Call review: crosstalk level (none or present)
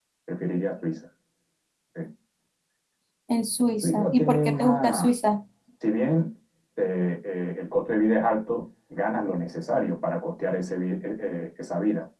present